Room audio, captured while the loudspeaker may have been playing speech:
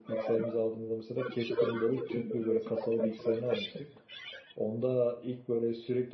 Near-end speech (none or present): present